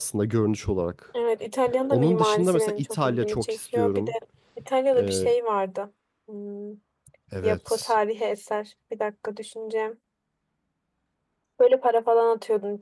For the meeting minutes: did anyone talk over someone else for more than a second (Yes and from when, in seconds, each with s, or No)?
Yes, from 1.9 s